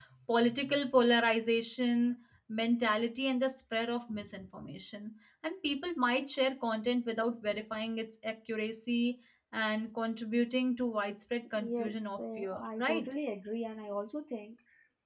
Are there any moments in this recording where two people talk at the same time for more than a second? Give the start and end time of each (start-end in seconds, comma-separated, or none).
11.8-13.1